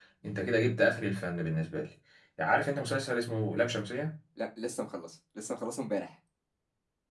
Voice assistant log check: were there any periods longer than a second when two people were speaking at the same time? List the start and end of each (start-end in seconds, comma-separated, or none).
none